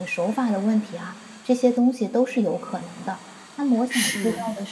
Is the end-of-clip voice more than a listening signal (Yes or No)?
No